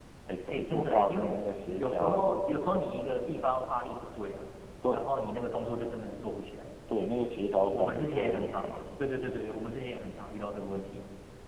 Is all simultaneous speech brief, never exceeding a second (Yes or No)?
No